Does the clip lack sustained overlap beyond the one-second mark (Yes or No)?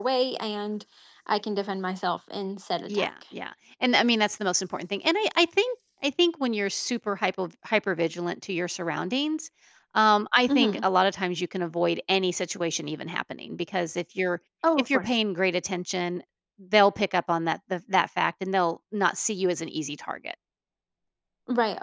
Yes